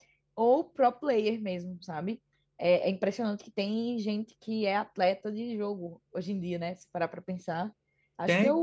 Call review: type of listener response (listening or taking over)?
listening